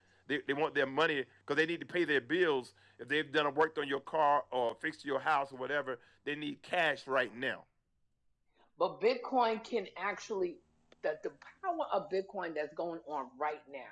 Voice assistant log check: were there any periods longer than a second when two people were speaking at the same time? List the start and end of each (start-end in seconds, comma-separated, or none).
none